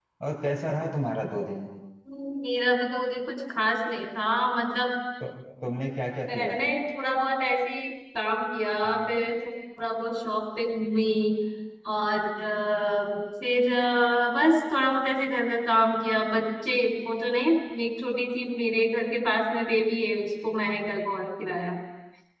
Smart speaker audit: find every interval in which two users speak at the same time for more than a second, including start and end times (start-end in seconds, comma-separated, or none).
none